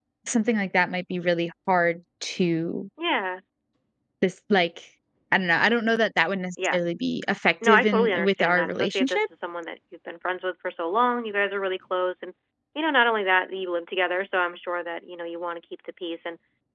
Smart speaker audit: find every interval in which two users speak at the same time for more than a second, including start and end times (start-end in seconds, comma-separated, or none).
7.6-9.3